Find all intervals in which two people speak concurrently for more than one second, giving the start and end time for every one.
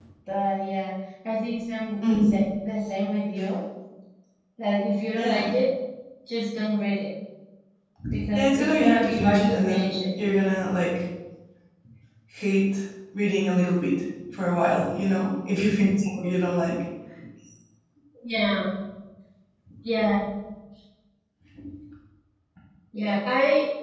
8.3-9.9

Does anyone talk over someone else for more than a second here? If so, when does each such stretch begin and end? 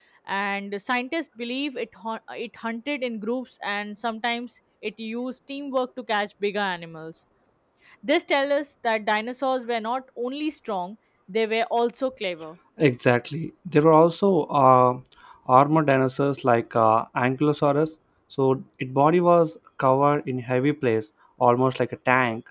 none

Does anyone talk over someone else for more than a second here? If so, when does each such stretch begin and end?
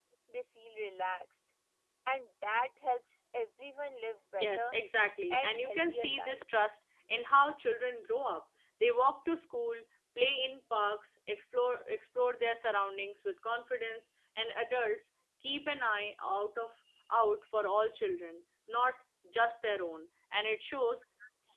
5.3-6.5

